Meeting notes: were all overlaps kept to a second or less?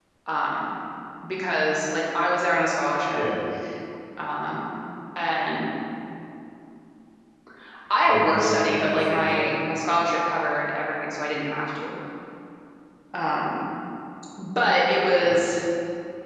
No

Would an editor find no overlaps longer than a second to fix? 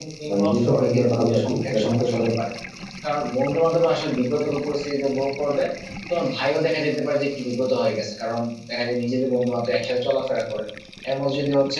No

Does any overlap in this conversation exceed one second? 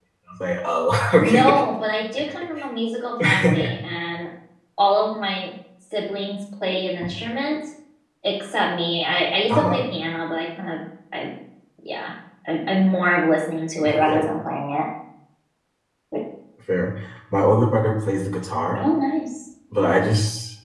No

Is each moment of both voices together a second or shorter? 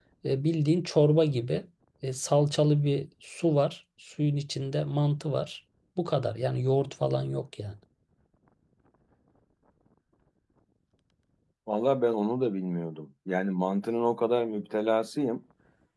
Yes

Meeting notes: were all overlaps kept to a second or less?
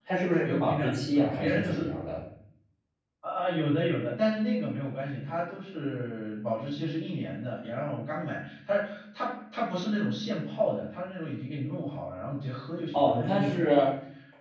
No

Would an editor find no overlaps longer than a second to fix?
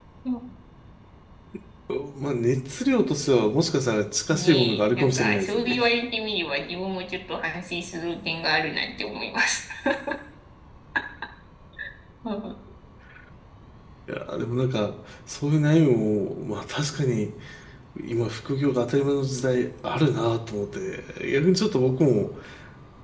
No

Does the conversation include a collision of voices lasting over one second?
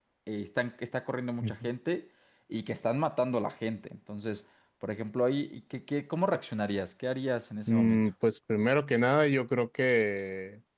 No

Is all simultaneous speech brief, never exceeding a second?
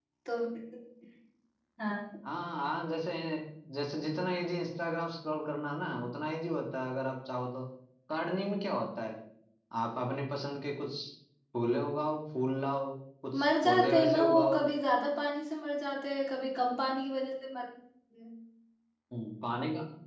No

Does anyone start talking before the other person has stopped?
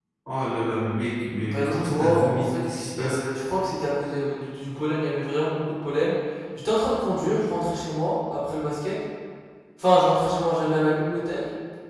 Yes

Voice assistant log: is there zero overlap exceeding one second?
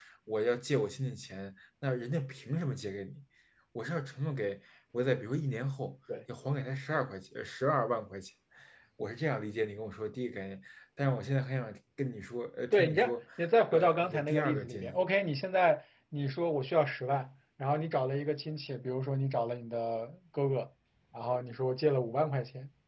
No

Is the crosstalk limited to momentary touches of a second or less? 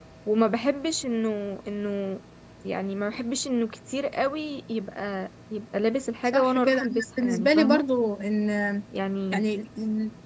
No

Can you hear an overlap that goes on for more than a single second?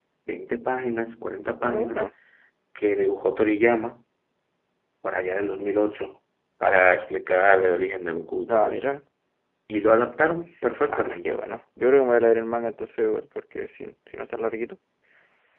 No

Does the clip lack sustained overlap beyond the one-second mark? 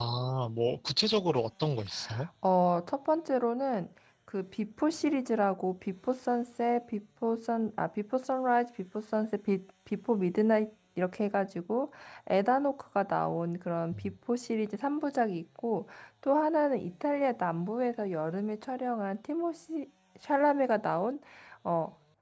Yes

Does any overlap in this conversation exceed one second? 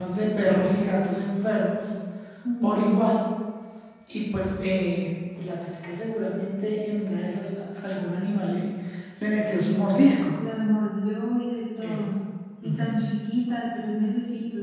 No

